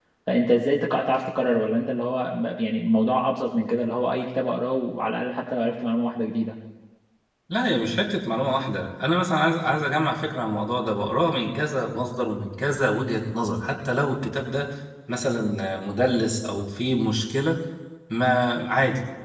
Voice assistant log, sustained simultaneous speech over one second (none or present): none